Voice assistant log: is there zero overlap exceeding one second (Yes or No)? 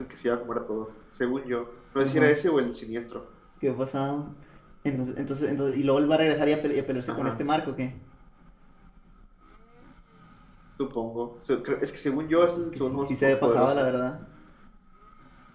No